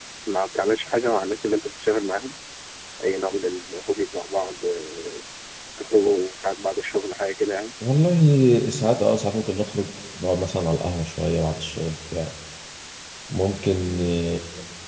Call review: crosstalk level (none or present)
none